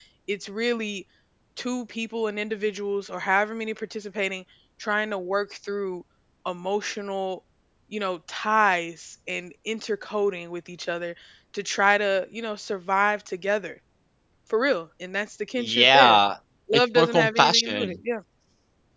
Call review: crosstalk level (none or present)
present